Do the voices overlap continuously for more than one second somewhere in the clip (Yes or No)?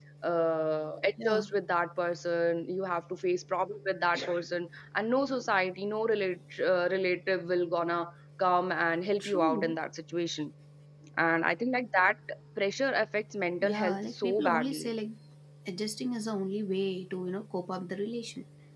Yes